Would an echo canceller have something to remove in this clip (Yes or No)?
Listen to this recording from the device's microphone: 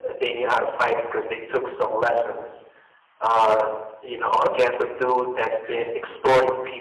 Yes